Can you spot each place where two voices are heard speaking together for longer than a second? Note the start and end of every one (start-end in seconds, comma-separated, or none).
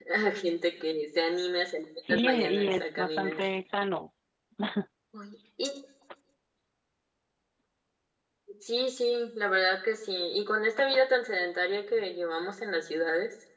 2.1-3.4